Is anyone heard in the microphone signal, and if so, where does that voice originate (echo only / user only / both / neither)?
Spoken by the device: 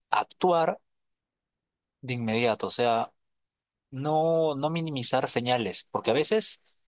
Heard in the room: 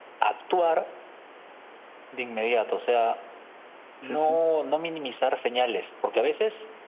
both